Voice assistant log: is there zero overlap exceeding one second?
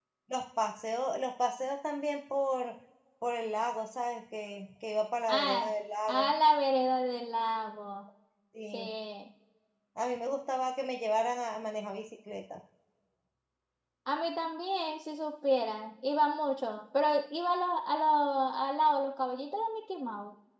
Yes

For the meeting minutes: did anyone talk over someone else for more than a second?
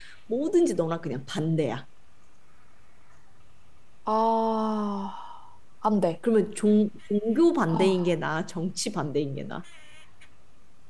No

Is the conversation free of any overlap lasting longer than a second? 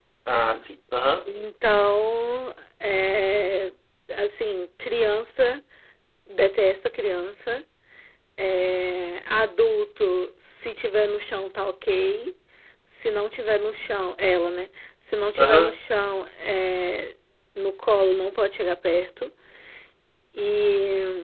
Yes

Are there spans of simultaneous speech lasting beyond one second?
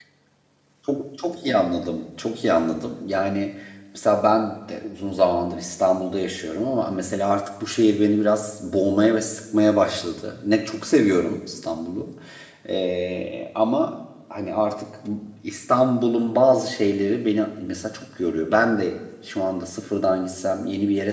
No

